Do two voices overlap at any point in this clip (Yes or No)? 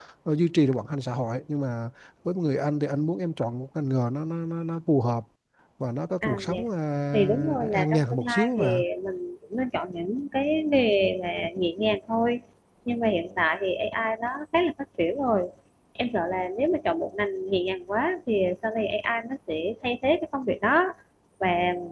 Yes